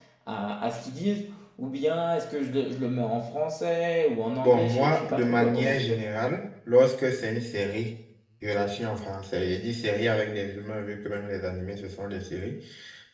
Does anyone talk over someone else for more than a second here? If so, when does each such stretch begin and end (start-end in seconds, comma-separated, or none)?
4.4-6.0